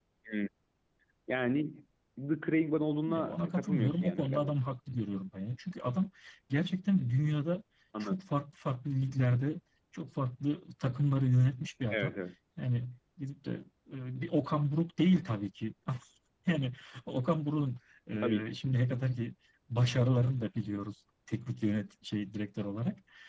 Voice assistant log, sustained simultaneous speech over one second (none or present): present